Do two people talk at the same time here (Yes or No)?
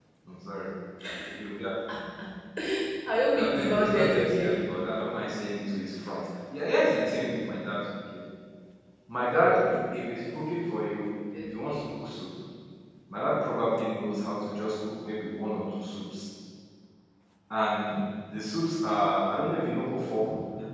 Yes